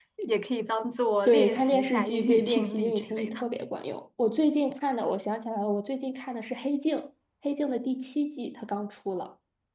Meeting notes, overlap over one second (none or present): present